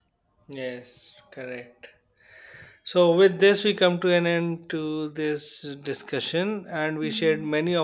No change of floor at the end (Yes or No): Yes